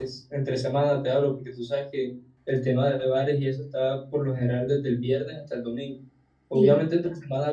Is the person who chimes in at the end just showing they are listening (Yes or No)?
Yes